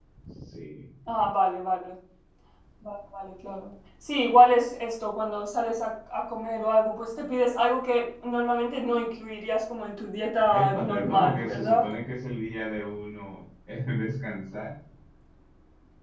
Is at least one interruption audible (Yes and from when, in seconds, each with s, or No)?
Yes, from 10.5 s